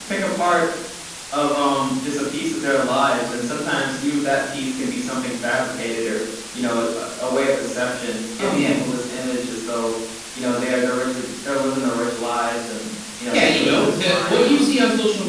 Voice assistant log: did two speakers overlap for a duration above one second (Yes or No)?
Yes